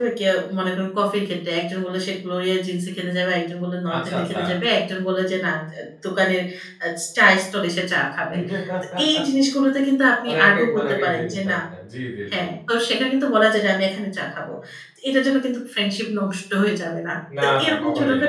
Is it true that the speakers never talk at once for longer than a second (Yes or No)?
No